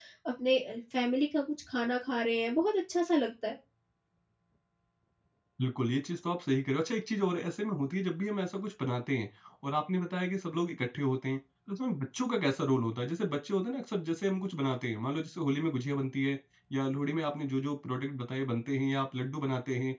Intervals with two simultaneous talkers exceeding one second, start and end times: none

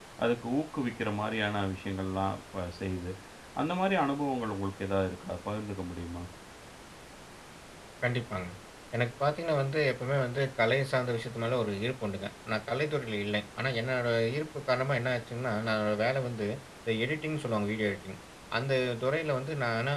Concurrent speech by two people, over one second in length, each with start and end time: none

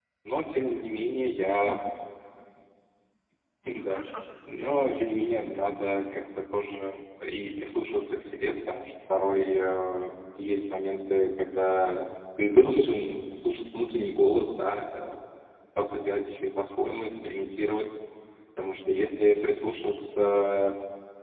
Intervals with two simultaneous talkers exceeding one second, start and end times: 4.6-5.8

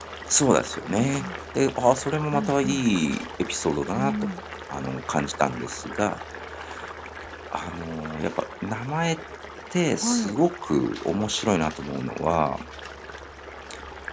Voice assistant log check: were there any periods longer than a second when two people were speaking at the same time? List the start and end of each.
none

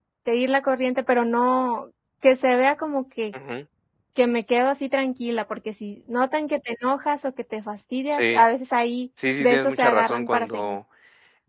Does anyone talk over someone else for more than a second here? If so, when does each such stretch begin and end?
9.4-10.8

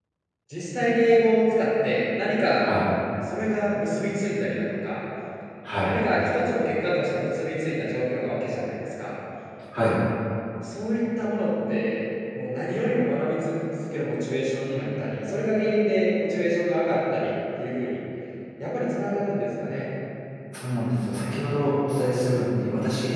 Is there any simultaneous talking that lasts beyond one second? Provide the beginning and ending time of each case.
none

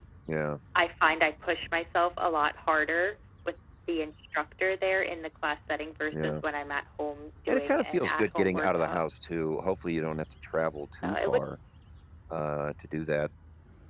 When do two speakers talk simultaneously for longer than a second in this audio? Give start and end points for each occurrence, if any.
7.5-9.0

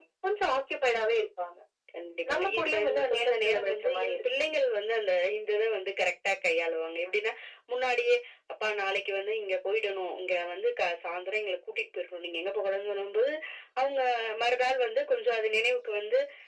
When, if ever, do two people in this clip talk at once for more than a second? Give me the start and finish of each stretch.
2.3-4.2

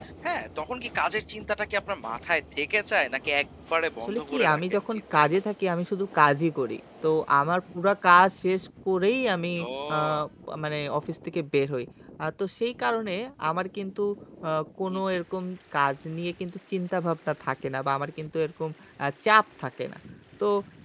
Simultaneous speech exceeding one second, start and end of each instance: 4.1-5.4

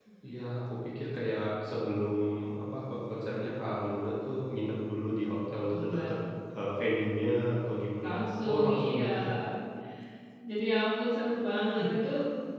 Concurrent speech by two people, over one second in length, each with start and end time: 8.0-9.3

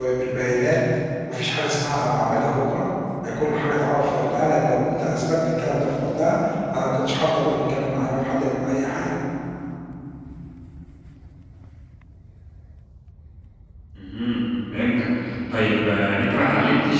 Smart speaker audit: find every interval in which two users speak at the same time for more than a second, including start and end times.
none

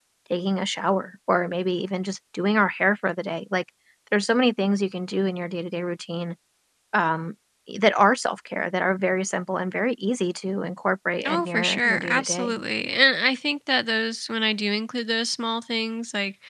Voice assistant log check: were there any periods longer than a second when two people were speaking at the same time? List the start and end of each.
11.2-12.6

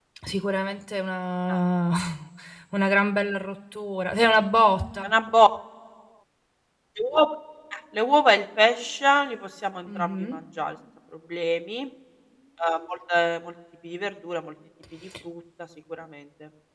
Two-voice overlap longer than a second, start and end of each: none

